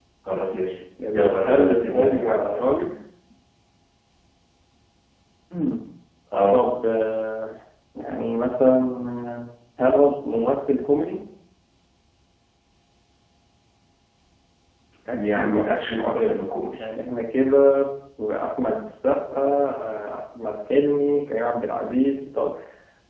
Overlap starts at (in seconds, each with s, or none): 1.1 s